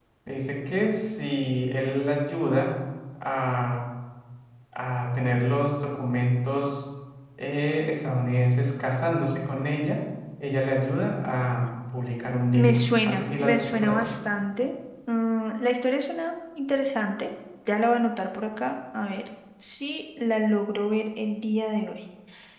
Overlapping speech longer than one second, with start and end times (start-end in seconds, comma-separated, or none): 12.6-14.1